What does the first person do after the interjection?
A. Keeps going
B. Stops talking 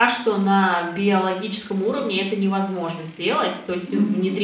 A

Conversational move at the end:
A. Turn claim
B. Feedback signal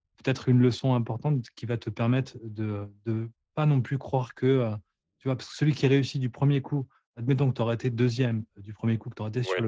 B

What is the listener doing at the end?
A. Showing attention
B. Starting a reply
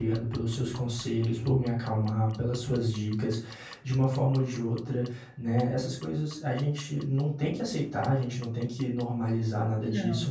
A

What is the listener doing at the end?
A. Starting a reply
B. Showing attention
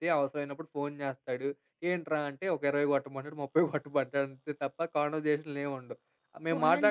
A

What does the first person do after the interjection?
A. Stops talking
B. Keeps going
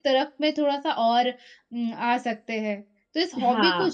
B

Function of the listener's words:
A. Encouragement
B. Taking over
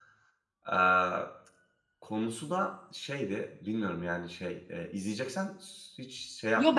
B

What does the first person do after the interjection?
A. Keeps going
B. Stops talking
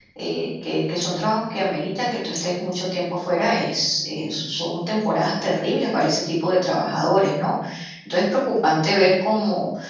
A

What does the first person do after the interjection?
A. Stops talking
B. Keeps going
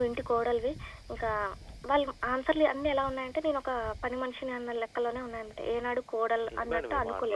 A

